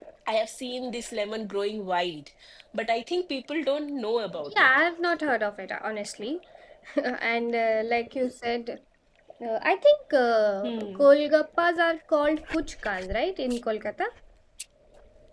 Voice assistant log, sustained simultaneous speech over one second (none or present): none